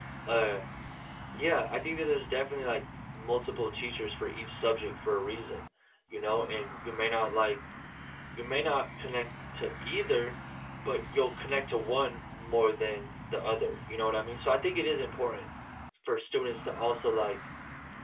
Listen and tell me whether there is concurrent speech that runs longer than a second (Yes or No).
No